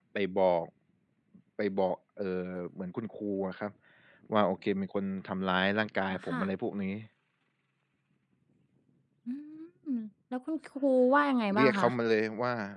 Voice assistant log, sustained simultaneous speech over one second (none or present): none